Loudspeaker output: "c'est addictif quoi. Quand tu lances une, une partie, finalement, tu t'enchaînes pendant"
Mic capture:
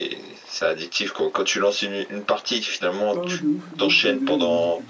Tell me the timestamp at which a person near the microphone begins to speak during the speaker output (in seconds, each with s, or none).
3.1 s